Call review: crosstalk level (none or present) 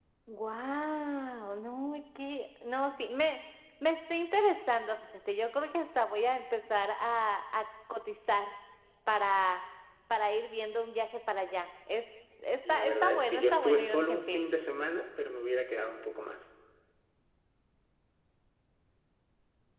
present